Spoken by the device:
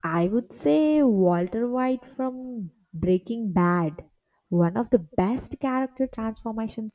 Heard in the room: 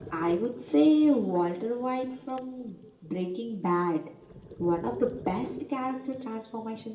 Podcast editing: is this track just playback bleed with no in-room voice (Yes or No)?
Yes